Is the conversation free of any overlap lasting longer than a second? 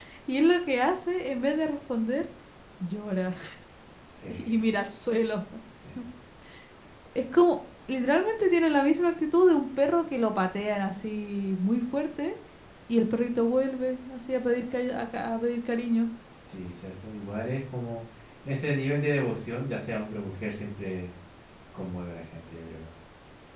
Yes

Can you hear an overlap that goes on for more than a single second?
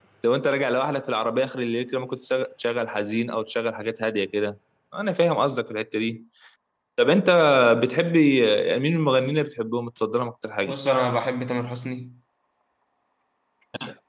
No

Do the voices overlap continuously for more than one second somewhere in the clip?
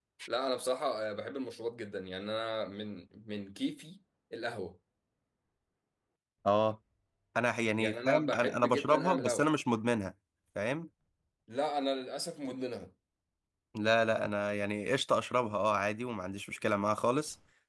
Yes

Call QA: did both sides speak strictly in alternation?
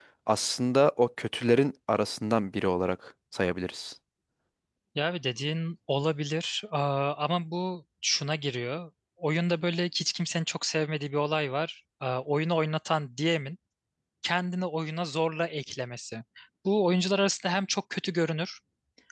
Yes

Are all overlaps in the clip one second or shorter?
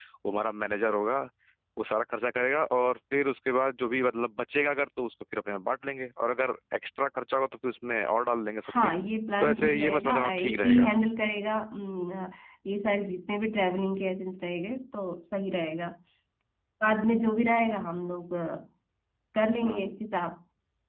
No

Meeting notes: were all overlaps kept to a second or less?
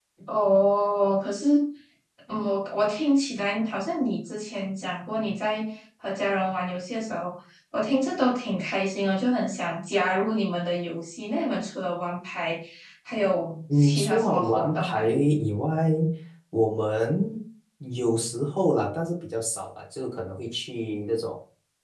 No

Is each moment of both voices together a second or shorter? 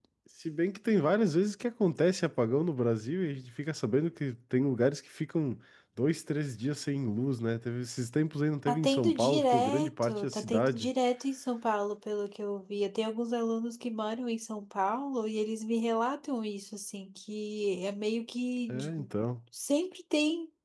No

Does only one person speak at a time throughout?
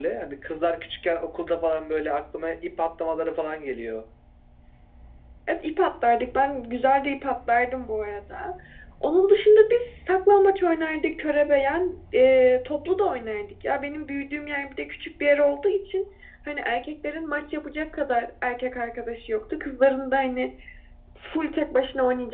Yes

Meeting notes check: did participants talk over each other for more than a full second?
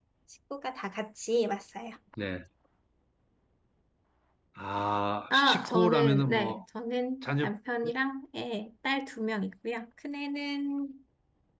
Yes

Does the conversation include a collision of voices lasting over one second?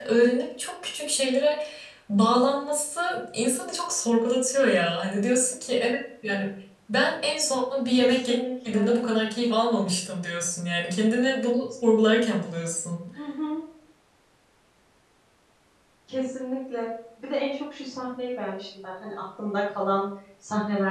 No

